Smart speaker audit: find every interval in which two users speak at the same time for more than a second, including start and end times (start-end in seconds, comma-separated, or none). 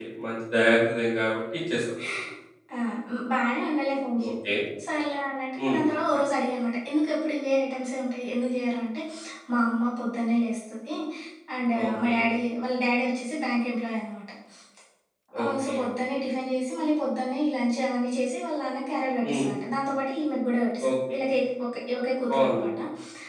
none